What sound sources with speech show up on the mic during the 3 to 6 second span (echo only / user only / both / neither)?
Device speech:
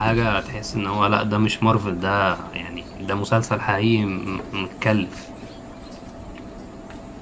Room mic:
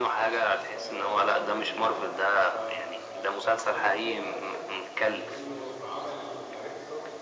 both